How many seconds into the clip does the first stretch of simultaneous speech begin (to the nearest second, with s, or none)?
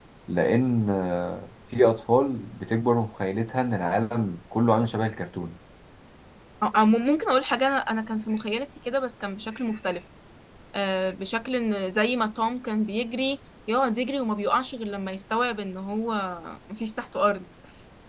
none